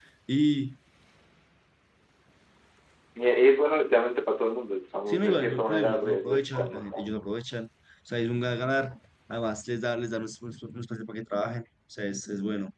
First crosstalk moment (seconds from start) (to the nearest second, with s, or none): 5 s